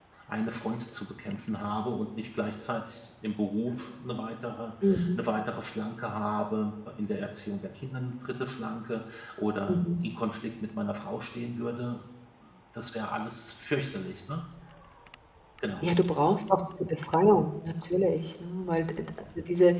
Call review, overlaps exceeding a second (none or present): none